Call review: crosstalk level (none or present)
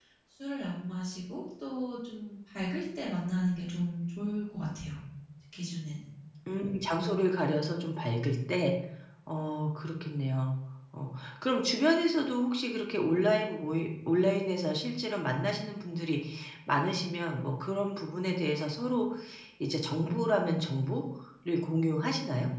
none